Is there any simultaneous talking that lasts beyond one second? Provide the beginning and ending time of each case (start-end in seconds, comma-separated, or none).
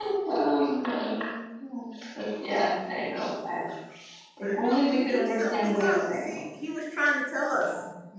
4.4-6.3